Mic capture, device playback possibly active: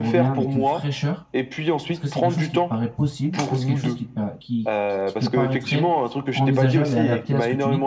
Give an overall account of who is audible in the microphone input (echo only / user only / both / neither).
both